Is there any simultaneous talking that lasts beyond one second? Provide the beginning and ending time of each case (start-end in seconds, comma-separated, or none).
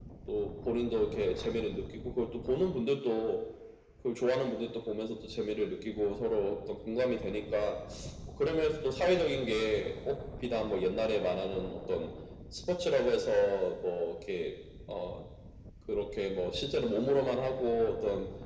none